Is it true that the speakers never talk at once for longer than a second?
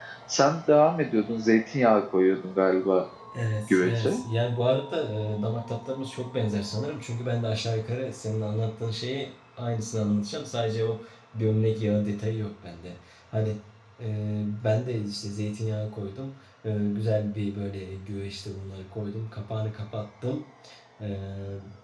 Yes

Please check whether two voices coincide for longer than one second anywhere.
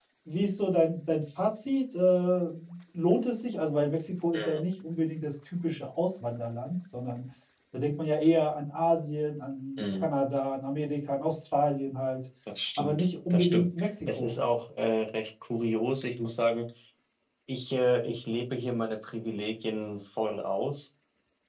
Yes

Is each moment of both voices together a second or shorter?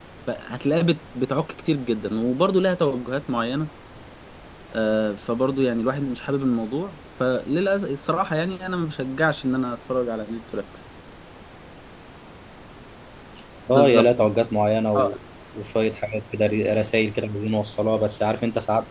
Yes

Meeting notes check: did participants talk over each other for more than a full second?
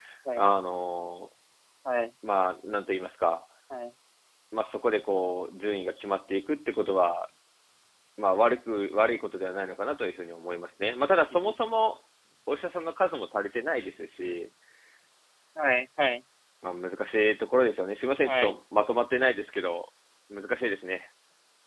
No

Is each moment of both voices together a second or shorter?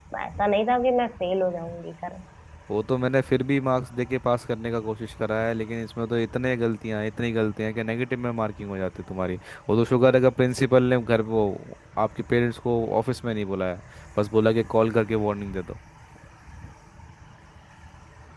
Yes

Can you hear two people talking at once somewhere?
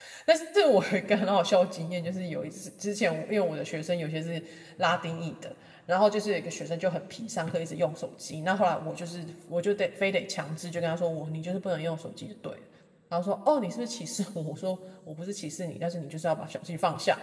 No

